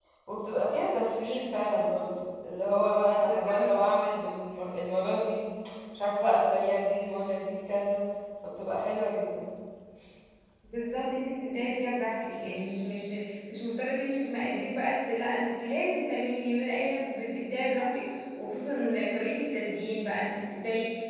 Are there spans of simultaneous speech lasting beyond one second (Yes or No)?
No